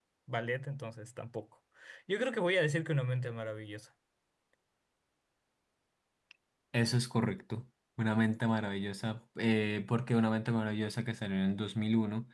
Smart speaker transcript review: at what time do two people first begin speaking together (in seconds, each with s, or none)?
none